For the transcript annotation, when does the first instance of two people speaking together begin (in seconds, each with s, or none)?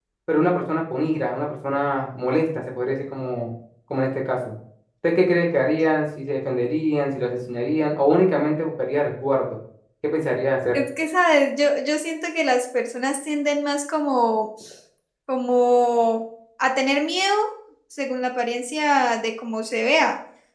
none